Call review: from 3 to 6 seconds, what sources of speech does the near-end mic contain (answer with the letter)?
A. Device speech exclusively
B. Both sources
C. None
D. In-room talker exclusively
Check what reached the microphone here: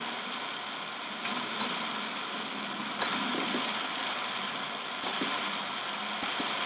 C